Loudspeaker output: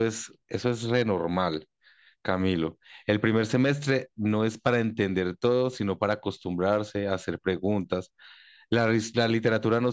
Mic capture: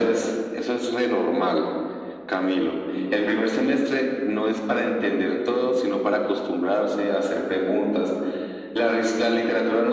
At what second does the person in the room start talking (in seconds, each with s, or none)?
none